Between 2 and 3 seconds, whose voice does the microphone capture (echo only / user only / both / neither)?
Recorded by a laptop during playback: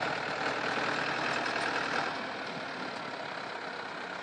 neither